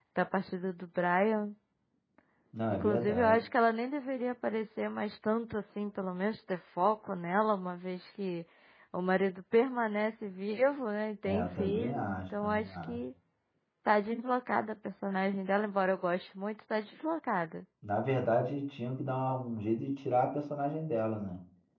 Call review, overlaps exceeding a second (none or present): present